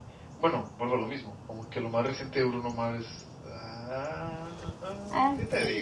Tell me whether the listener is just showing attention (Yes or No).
No